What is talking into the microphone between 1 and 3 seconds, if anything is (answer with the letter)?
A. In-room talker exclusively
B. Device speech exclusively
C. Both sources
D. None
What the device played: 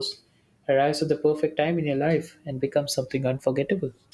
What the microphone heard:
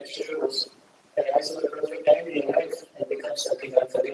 B